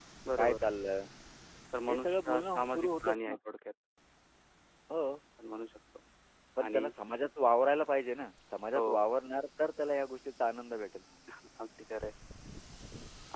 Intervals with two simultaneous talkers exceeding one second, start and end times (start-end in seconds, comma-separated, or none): 1.9-3.4